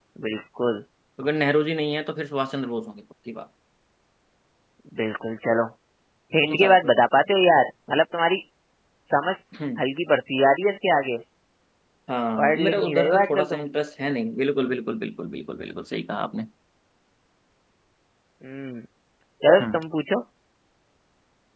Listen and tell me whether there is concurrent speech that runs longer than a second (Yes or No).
Yes